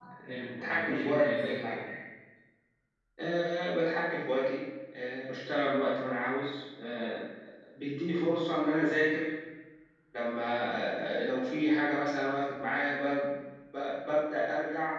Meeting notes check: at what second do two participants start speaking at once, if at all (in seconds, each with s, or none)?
0.6 s